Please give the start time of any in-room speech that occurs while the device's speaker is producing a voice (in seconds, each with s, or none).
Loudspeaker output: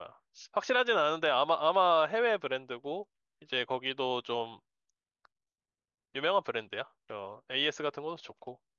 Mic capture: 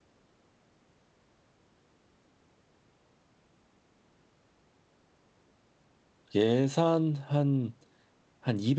6.4 s